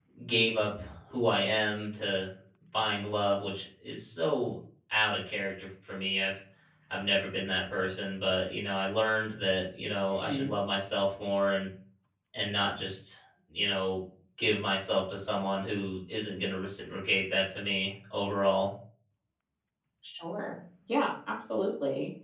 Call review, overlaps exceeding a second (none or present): none